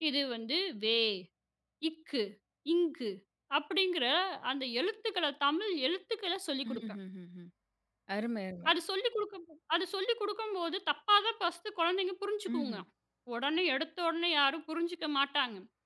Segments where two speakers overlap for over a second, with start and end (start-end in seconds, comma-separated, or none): none